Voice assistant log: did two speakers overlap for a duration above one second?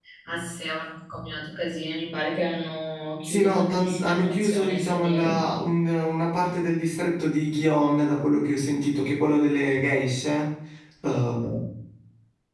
Yes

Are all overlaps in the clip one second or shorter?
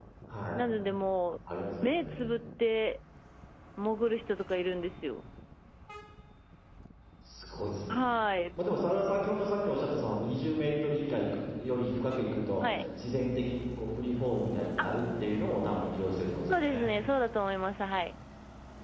Yes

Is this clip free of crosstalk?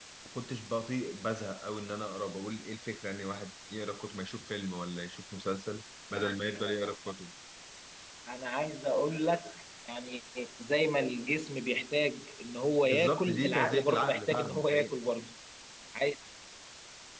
No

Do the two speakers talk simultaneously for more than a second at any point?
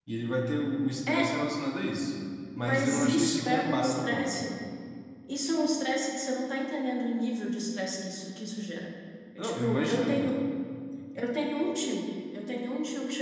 Yes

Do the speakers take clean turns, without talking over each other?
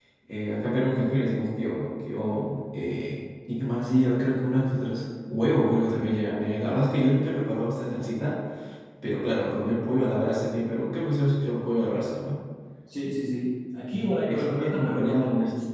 No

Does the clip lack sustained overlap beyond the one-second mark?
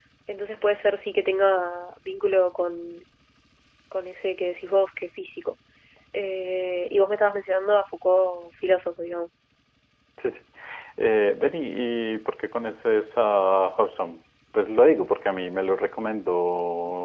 Yes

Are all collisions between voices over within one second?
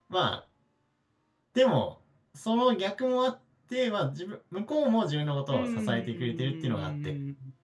No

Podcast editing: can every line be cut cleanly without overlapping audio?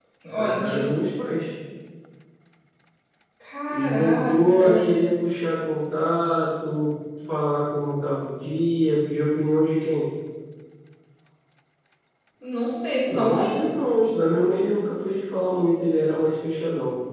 No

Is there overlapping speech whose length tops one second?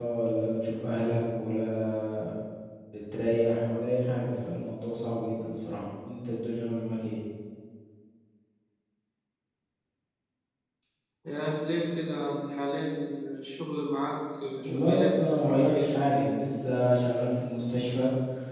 Yes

